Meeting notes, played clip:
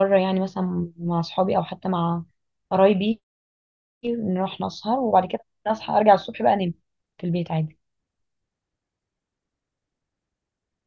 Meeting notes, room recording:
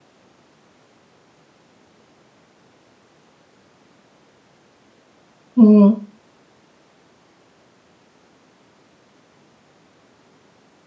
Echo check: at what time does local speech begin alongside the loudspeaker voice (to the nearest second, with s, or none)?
6 s